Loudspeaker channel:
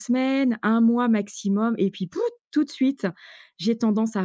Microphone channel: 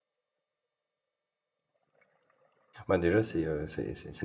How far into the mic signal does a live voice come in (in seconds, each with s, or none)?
2.9 s